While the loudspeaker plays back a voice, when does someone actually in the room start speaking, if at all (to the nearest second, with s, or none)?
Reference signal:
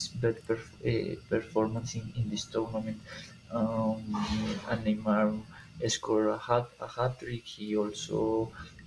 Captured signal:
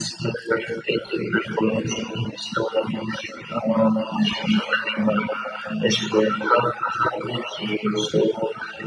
none